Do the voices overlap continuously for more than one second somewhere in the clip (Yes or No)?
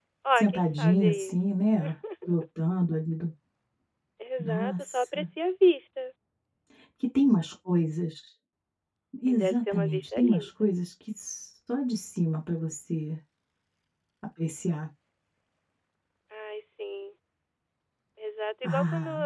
Yes